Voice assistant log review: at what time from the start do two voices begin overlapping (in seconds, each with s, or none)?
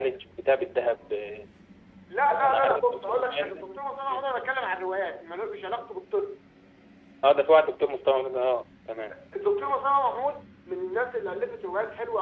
2.4 s